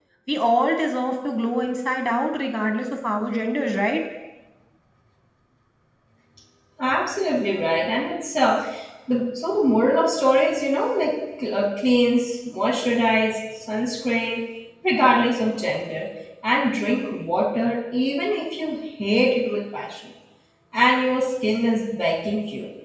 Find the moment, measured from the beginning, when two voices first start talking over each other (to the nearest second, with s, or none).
none